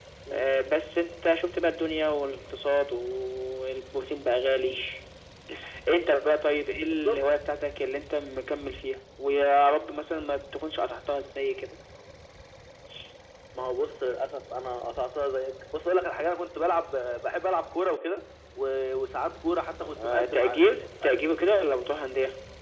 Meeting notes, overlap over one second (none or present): present